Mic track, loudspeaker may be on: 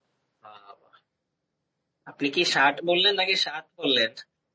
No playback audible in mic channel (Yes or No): Yes